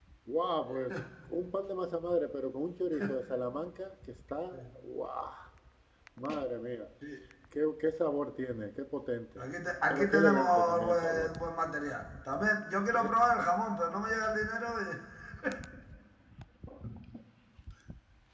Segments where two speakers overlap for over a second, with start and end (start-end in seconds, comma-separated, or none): 9.9-11.3